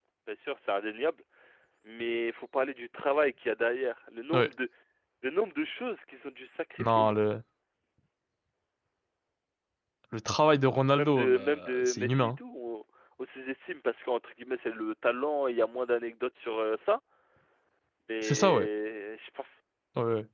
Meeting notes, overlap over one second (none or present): present